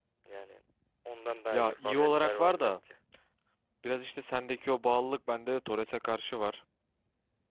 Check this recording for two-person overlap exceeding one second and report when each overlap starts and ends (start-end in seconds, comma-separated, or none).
1.5-2.8